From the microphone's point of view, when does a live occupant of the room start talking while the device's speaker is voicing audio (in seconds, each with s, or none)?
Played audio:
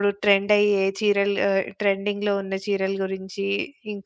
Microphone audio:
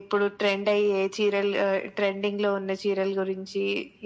none